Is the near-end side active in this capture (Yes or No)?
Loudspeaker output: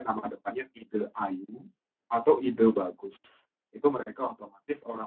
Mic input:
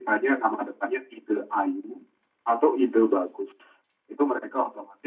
No